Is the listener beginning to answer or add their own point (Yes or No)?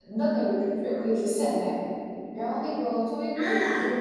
No